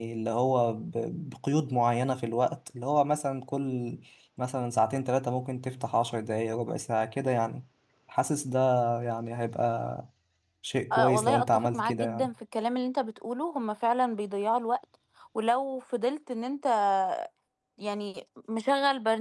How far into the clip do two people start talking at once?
10.9 s

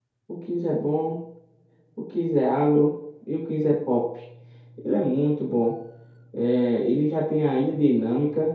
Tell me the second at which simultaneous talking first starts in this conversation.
none

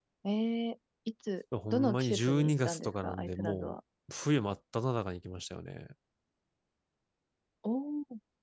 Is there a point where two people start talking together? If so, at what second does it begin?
1.5 s

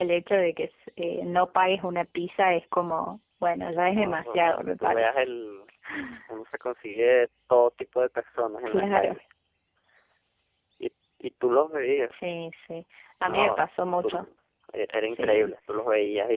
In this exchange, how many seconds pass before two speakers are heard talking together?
4.0 s

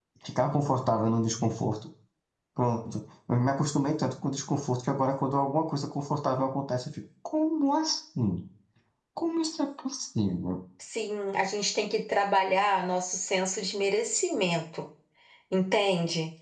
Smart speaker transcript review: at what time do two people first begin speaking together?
none

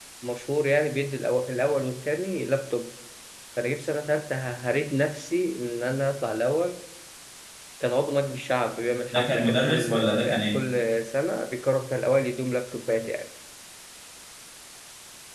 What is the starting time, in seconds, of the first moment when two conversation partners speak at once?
9.1 s

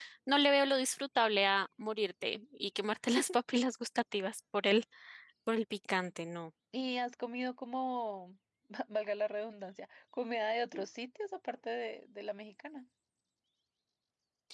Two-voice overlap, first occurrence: none

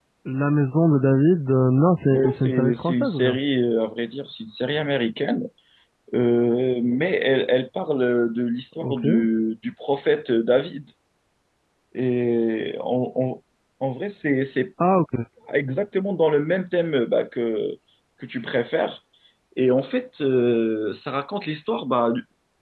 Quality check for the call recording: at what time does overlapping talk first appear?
2.1 s

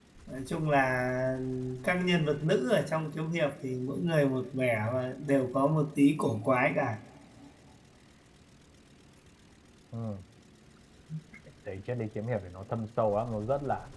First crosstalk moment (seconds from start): none

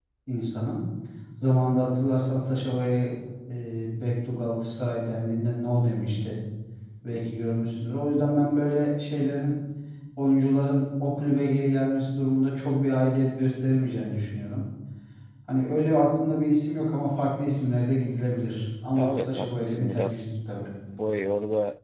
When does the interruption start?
18.9 s

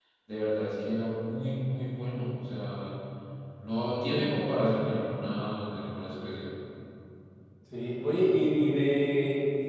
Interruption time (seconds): none

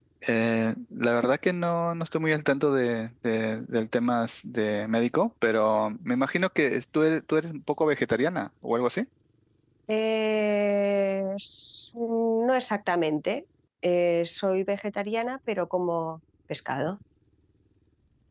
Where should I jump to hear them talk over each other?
none

